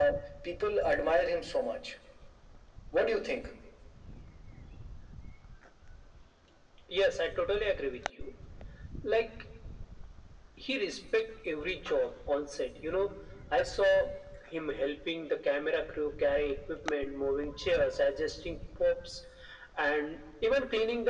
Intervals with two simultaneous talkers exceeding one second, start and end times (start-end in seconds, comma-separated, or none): none